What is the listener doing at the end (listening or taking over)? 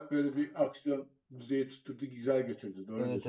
taking over